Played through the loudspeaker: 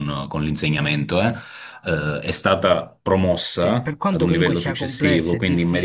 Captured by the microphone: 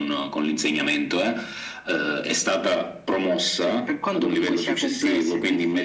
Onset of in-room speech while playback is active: none

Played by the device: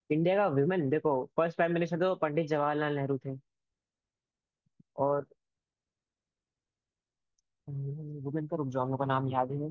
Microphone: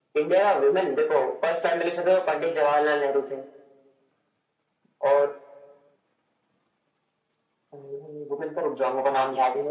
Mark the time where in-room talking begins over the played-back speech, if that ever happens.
none

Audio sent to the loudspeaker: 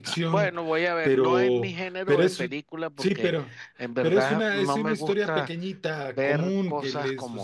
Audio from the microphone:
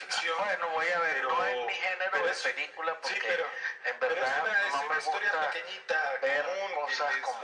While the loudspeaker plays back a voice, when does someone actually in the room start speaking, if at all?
none

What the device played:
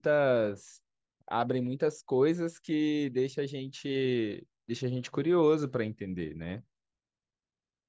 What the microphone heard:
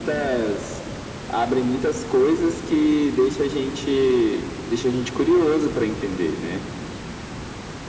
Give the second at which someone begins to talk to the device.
none

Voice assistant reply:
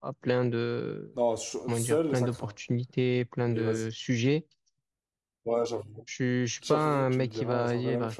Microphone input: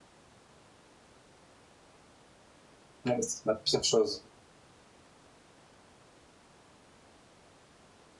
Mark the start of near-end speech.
3.1 s

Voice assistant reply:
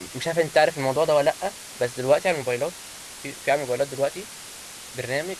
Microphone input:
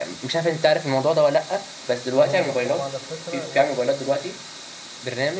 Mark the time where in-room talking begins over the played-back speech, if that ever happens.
2.2 s

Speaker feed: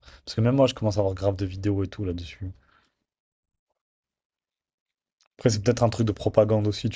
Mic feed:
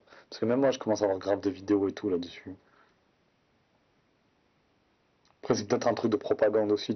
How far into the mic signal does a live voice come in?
none

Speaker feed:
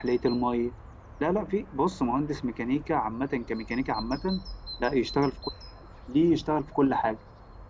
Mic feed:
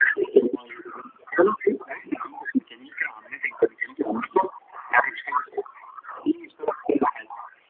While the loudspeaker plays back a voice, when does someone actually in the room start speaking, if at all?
none

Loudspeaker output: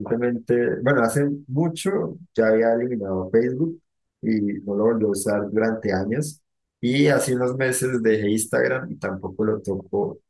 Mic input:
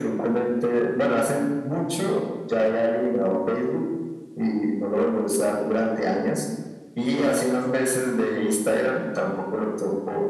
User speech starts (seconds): none

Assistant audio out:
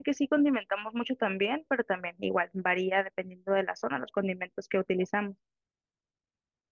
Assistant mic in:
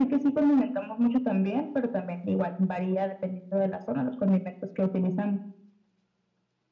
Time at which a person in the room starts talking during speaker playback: none

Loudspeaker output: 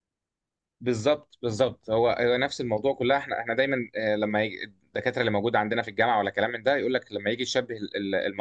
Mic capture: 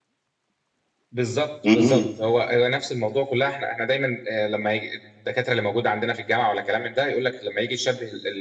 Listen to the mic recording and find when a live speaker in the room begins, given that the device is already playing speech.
1.6 s

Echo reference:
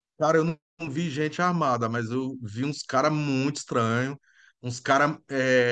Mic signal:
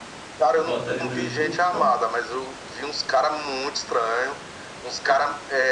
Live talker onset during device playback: 0.5 s

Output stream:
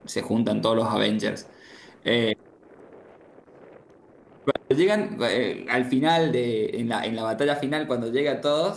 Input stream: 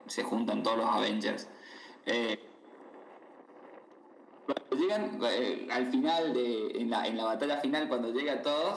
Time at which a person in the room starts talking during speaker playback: none

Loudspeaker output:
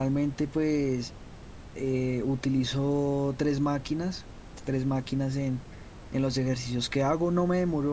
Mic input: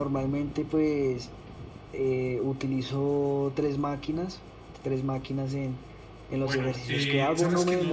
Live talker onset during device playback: 6.3 s

